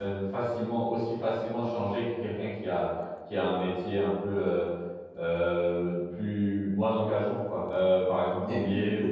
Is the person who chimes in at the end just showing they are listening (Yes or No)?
Yes